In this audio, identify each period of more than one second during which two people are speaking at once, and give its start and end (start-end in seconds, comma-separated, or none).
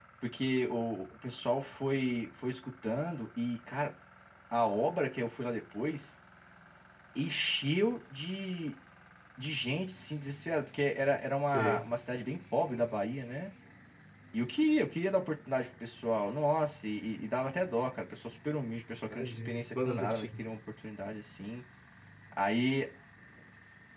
19.0-20.3